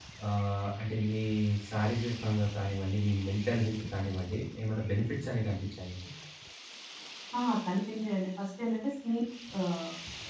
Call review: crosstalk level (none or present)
none